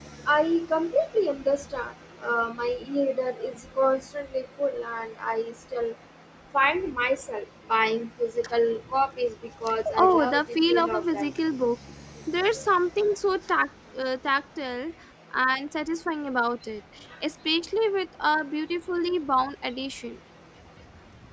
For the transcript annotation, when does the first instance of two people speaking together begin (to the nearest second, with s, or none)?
10 s